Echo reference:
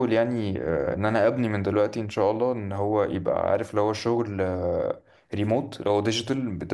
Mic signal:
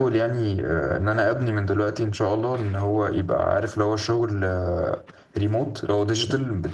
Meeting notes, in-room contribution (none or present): none